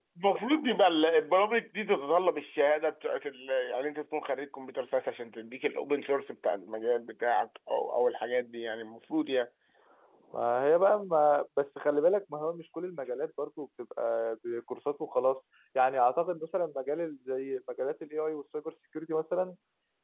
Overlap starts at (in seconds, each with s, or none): none